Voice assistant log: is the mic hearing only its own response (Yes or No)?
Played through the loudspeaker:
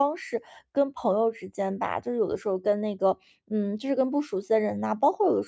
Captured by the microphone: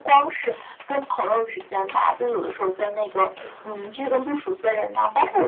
Yes